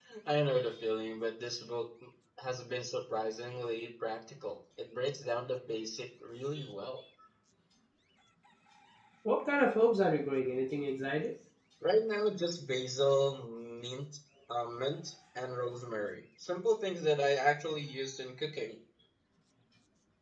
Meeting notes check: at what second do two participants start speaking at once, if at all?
none

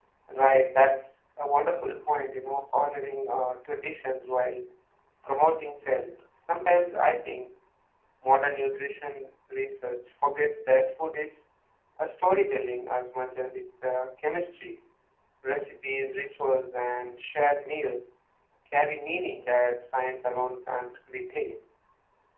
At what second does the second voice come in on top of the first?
none

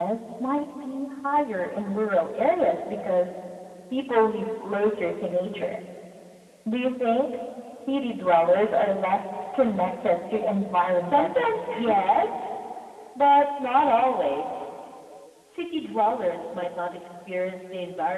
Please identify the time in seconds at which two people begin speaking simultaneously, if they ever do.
11.0 s

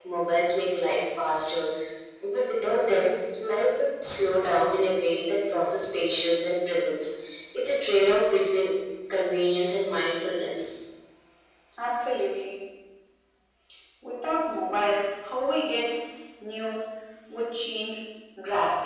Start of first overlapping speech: none

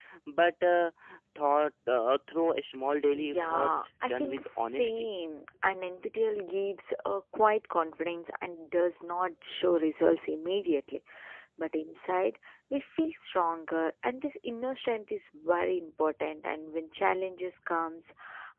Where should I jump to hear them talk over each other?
3.1 s

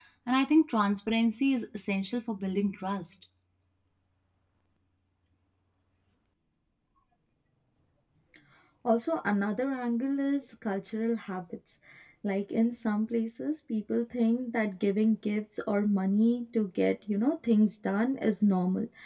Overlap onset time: none

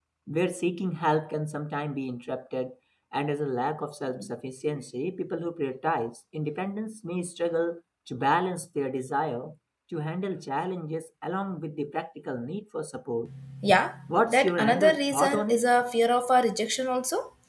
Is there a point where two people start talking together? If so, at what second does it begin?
14.1 s

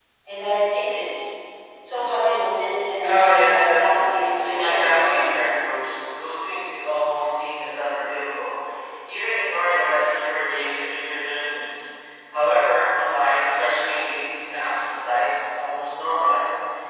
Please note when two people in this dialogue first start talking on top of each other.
3.0 s

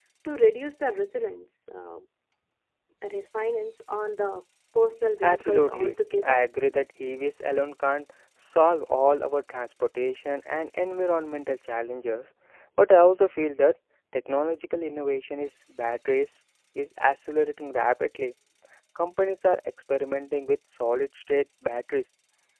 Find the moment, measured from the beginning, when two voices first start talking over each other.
5.2 s

